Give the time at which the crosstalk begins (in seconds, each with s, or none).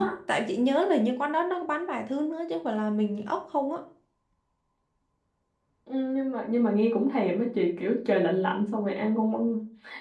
none